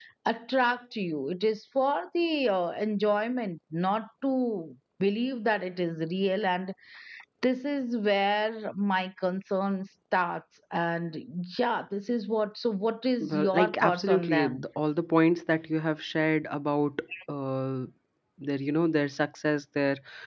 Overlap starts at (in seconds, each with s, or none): 13.2 s